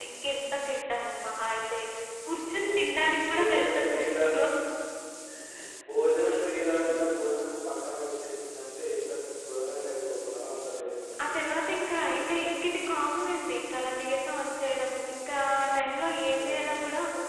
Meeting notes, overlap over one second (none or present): present